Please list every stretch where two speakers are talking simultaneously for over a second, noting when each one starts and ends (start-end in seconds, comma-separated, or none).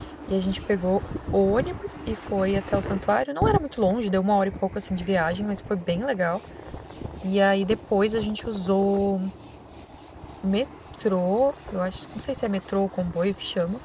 none